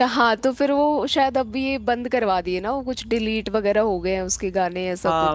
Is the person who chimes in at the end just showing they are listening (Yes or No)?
No